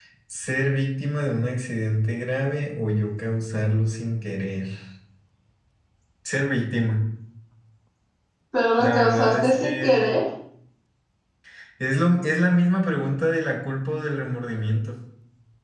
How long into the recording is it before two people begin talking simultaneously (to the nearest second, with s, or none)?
9 s